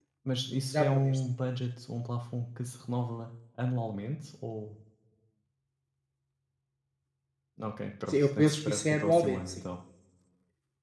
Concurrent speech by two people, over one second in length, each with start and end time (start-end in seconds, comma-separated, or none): 8.1-9.6